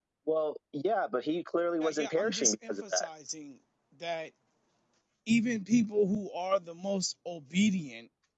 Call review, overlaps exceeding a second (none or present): present